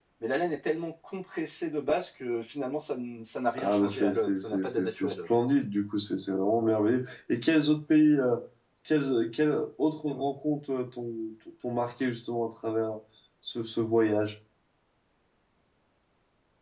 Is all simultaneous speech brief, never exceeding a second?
No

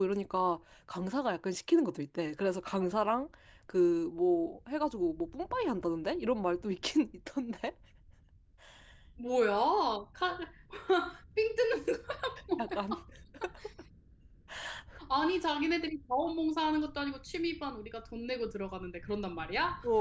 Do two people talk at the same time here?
No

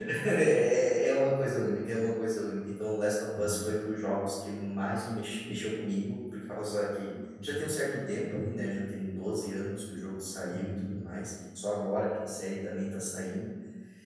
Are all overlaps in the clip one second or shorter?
Yes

